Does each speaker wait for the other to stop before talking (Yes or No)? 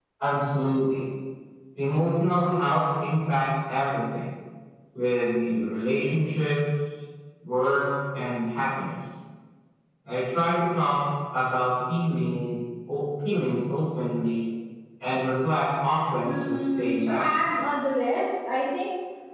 No